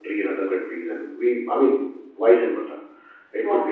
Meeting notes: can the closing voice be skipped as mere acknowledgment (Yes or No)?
Yes